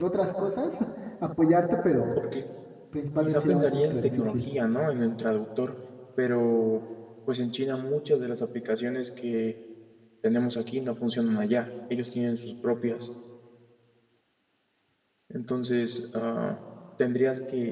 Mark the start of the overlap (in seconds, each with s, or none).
3.2 s